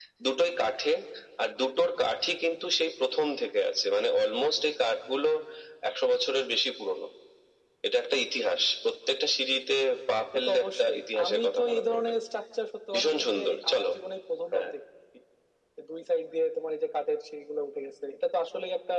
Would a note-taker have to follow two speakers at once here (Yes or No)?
Yes